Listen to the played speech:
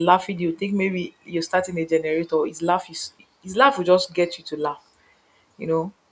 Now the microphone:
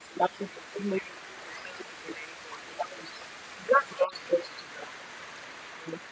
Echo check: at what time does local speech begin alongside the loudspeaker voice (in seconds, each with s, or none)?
none